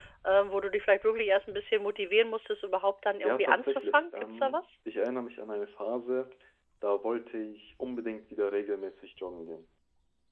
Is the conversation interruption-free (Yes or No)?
No